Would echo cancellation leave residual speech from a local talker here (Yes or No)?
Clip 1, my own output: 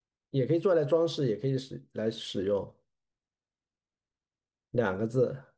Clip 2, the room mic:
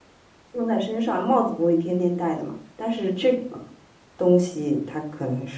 Yes